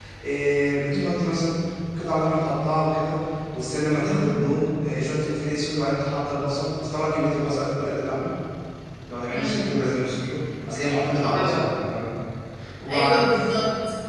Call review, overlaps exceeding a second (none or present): none